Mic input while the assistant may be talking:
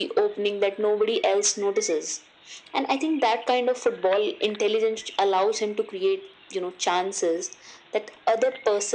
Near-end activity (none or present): none